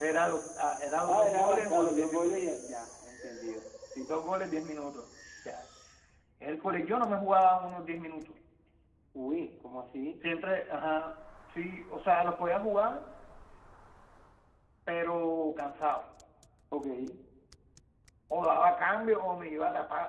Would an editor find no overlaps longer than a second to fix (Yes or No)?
No